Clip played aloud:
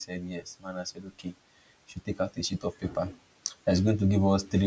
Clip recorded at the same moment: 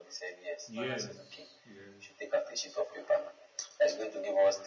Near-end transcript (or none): yes, yes.